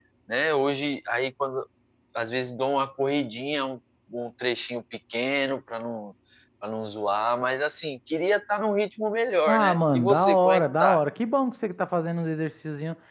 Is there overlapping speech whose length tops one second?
Yes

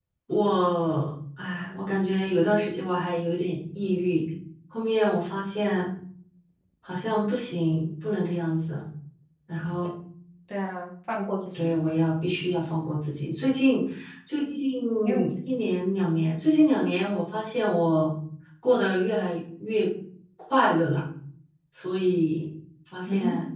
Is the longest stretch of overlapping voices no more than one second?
Yes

